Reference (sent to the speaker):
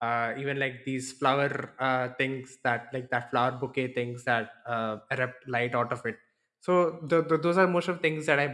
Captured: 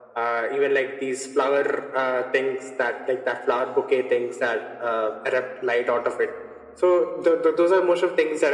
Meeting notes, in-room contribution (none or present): none